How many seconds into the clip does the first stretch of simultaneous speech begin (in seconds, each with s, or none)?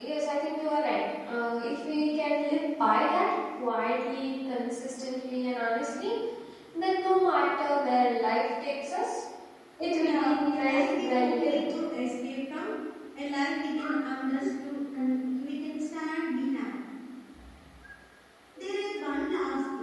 10.0 s